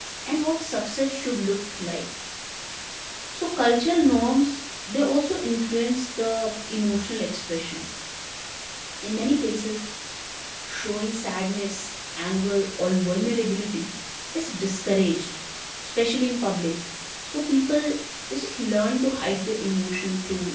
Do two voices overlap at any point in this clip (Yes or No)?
No